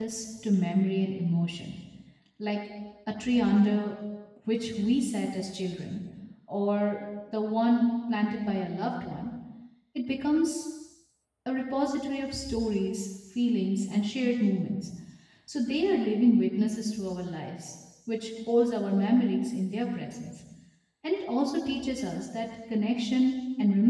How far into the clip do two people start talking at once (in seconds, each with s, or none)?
none